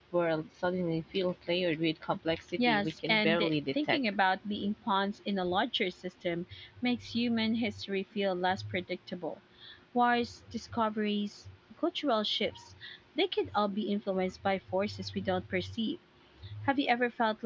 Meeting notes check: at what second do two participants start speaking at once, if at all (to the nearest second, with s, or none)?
3 s